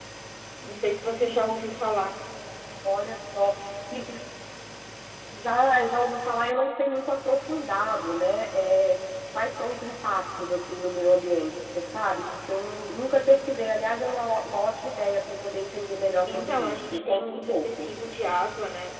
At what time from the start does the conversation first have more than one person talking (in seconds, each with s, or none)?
16.3 s